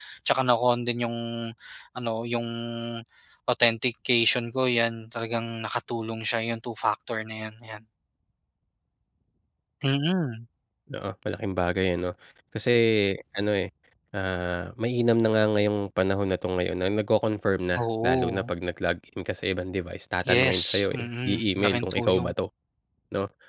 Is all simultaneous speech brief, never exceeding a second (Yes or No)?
No